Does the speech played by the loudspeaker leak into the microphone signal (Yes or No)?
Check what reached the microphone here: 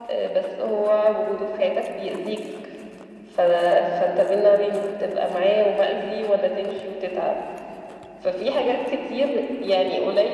Yes